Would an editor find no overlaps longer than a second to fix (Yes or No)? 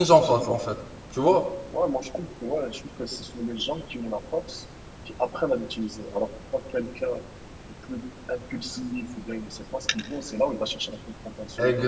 Yes